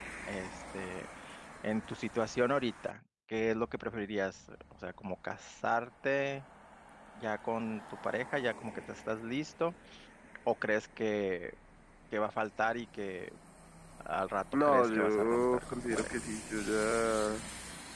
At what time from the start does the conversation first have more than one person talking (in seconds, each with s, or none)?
14.7 s